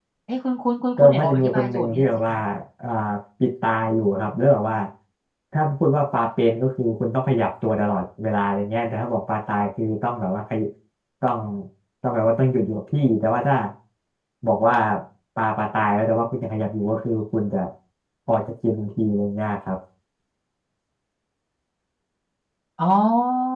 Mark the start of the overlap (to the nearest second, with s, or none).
1 s